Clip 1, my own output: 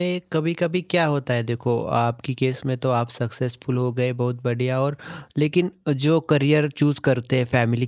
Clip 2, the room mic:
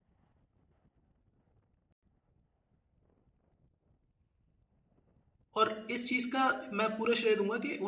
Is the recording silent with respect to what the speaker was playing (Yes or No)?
Yes